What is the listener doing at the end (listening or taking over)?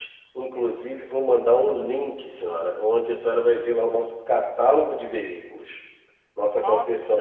listening